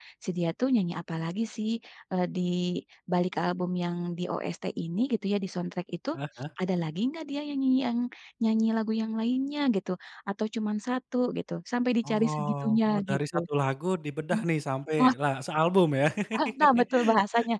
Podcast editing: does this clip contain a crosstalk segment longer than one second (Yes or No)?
Yes